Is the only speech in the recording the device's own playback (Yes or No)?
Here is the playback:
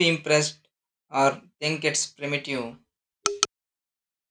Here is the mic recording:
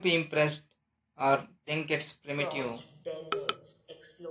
No